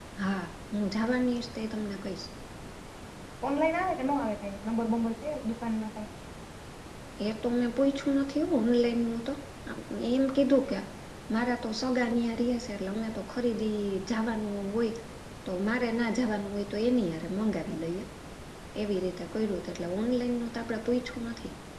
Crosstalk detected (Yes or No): No